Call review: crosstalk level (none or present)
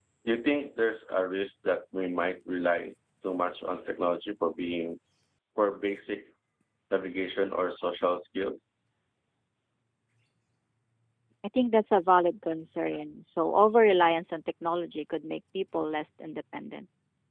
none